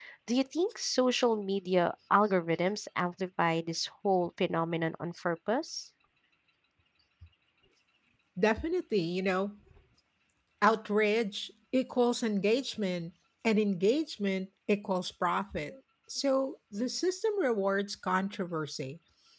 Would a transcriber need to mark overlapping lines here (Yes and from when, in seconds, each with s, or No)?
No